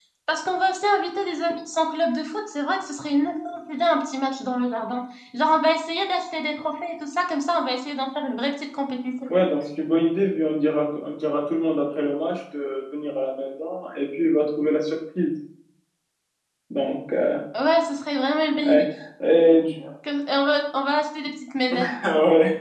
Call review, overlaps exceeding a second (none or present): none